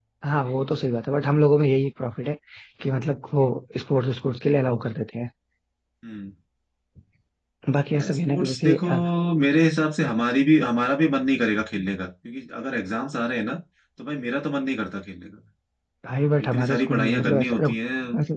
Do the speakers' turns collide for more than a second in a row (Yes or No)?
Yes